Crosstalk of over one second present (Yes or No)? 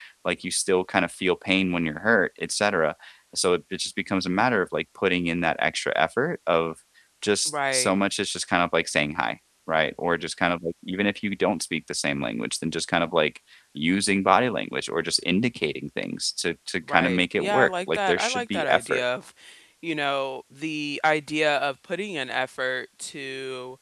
Yes